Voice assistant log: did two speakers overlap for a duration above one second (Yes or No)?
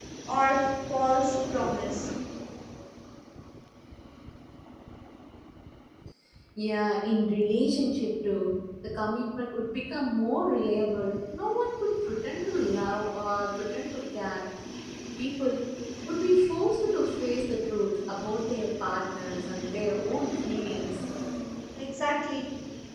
No